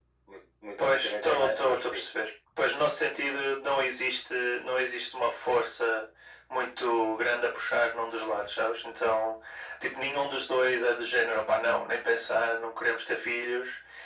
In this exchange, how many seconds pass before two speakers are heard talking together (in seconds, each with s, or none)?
0.8 s